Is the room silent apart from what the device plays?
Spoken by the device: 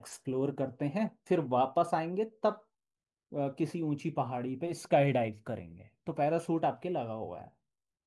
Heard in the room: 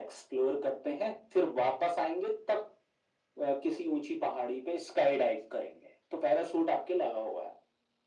Yes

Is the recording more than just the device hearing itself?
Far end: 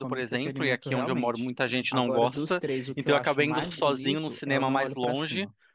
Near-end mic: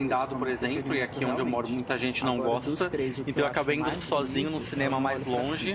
No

